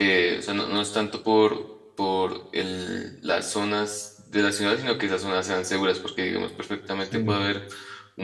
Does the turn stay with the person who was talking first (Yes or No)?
Yes